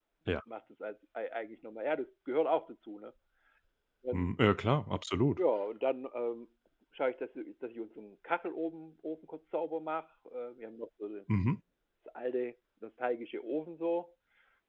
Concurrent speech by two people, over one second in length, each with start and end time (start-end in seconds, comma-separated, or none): none